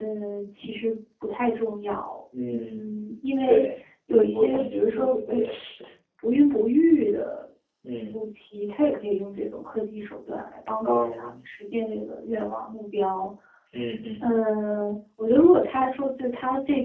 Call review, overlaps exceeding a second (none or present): present